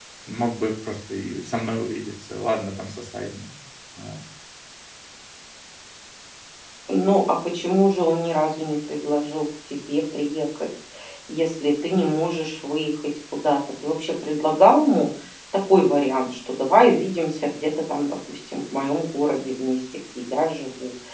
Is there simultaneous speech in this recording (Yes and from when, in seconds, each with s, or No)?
No